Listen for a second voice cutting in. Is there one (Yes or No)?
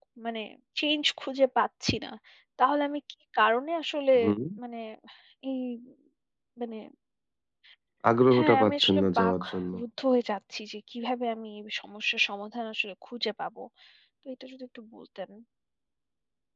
Yes